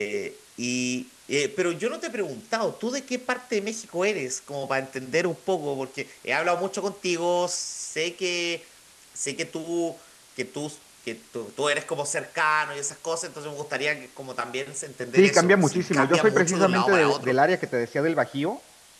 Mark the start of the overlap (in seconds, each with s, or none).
15.2 s